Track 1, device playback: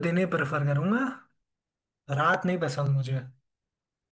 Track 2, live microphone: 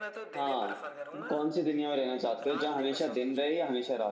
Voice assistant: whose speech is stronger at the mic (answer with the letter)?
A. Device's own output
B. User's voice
B